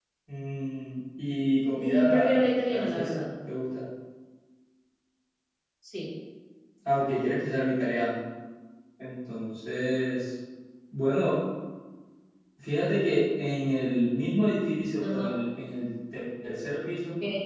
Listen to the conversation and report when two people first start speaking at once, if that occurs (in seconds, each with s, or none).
1.8 s